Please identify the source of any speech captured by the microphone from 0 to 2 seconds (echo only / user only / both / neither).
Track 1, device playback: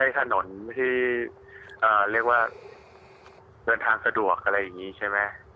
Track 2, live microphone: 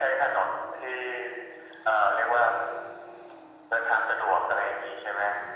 echo only